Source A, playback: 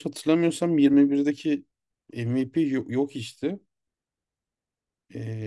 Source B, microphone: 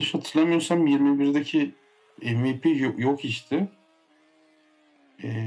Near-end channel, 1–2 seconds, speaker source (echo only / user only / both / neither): echo only